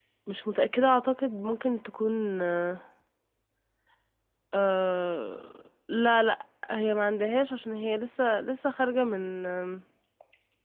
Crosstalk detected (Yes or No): No